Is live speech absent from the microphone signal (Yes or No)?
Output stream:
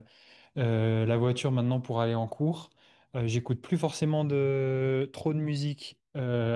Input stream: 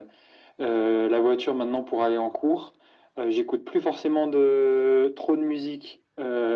Yes